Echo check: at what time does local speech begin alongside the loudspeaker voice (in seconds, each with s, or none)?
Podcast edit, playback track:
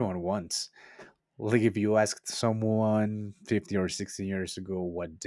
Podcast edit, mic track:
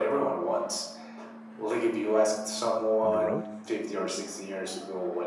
3.0 s